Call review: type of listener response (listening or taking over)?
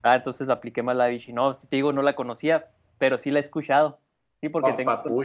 taking over